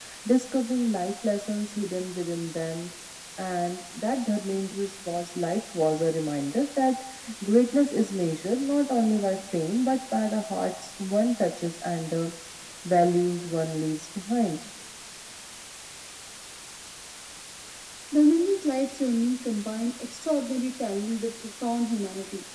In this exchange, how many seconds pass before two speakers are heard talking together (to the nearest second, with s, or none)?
none